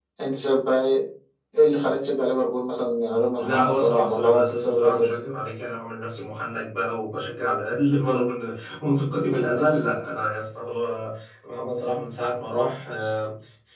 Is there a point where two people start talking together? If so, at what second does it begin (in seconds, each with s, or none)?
3.4 s